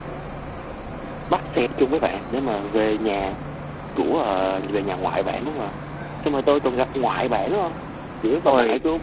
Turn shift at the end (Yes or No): No